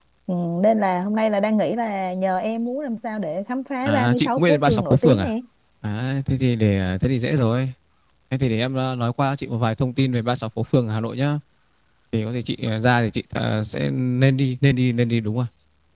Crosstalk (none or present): present